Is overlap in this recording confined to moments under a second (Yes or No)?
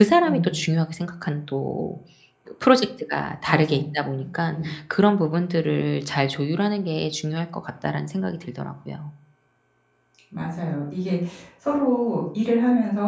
Yes